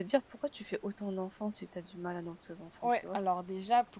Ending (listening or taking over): taking over